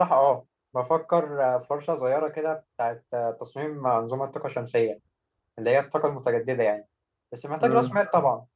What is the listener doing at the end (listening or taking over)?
listening